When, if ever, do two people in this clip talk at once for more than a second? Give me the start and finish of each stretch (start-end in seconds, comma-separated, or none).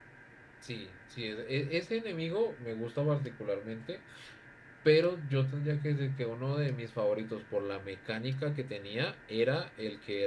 none